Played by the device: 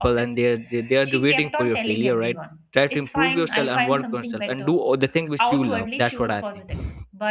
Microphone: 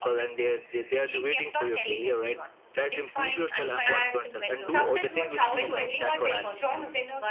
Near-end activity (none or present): present